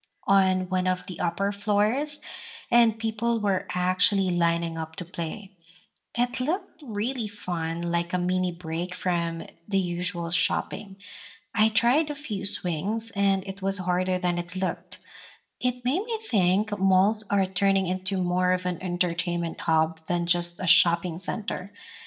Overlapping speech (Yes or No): No